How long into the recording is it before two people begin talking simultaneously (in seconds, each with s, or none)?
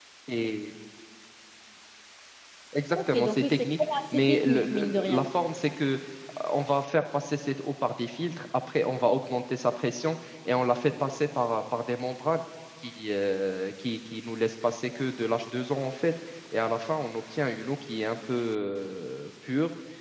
3.0 s